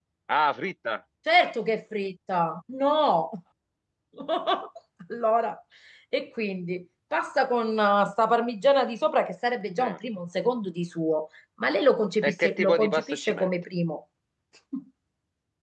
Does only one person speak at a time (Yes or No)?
No